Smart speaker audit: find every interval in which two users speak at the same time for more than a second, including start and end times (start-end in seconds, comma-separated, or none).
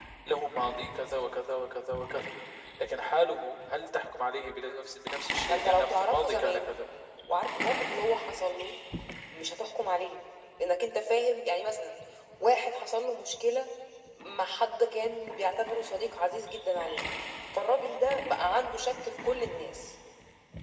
5.5-6.7